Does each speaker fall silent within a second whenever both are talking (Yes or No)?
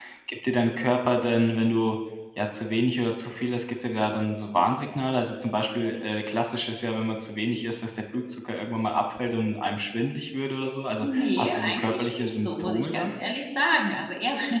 No